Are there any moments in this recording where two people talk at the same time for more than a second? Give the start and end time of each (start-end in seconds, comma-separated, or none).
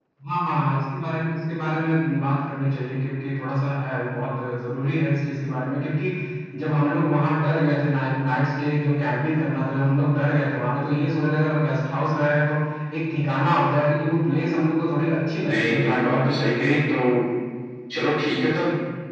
15.4-16.8